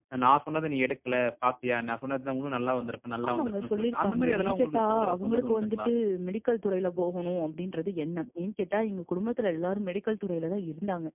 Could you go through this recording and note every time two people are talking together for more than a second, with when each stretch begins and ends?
3.3-5.9

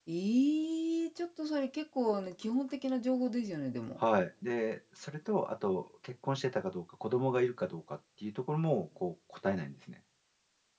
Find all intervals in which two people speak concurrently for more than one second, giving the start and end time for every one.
none

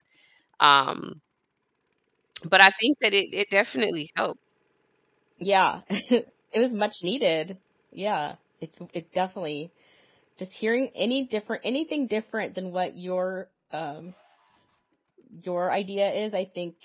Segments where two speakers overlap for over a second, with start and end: none

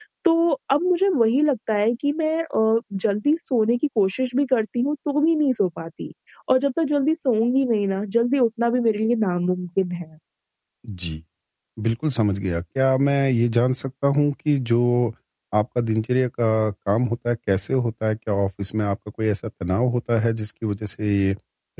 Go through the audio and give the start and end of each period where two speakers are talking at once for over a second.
none

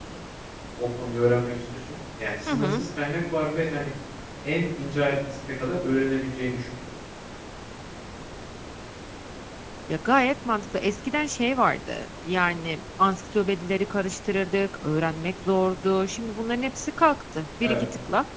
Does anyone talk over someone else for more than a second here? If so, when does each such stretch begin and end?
none

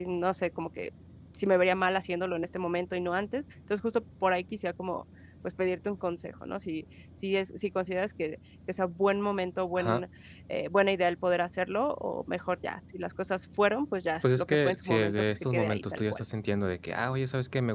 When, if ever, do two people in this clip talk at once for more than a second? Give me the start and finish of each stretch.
14.4-16.2

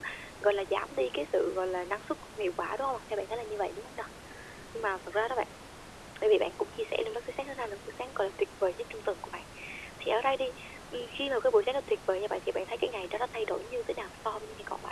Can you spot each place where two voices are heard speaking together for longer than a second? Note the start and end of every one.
none

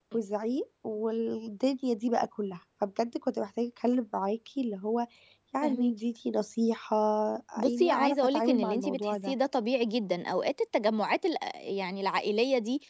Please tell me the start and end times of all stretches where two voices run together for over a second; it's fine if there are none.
7.6-9.3

